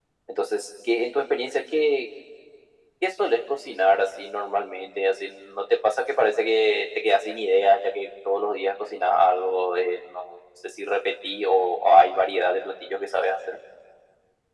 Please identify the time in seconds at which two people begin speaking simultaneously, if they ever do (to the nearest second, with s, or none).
none